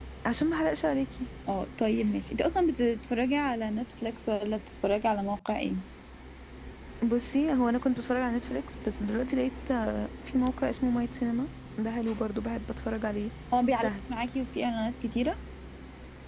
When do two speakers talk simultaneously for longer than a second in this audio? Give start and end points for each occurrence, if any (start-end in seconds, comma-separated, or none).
none